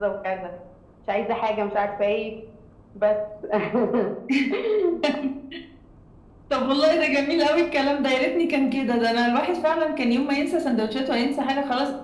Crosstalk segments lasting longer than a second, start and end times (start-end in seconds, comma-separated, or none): none